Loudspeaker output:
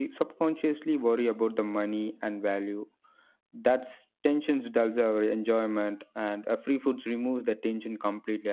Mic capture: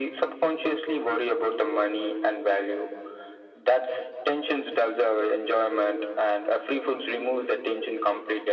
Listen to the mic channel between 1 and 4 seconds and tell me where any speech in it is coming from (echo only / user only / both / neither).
echo only